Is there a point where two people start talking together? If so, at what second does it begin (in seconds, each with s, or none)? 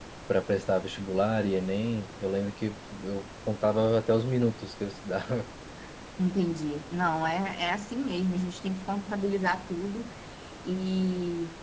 none